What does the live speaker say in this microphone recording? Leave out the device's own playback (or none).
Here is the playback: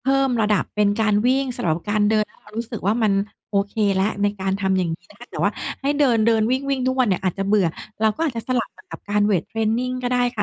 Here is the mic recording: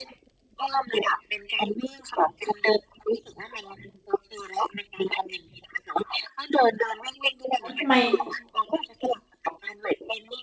"เฮ้ย! ทำไม